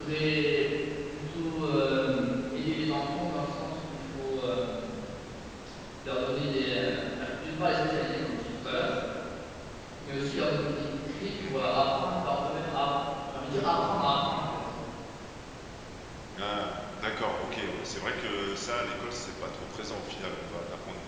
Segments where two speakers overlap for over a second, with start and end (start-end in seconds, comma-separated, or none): none